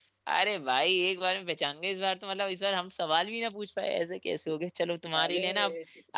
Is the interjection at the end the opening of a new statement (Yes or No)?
No